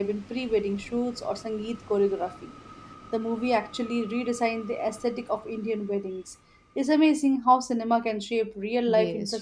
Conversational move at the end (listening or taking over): taking over